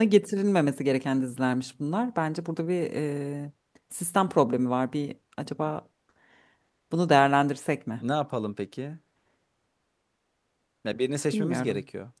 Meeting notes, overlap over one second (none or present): none